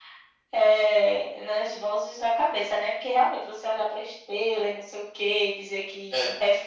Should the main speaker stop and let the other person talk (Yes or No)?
No